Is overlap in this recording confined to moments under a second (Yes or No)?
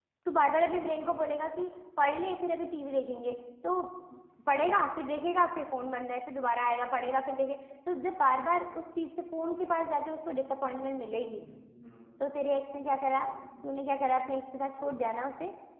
Yes